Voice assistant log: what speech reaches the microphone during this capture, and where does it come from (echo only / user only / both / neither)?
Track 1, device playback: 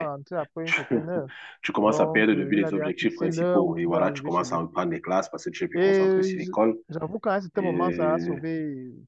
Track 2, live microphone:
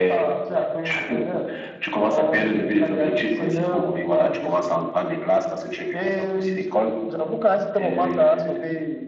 echo only